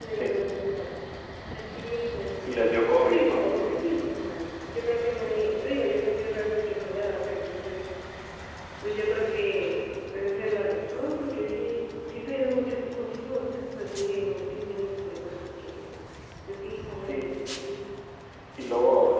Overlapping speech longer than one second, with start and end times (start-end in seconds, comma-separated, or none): none